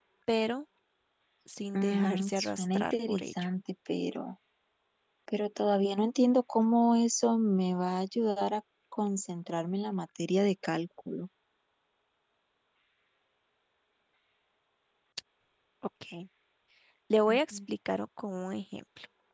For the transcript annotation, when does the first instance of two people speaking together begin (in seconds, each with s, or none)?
1.7 s